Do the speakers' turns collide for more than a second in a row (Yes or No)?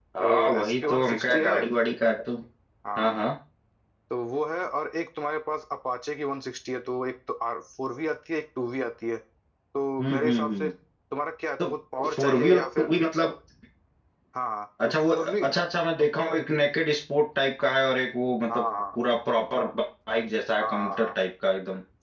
Yes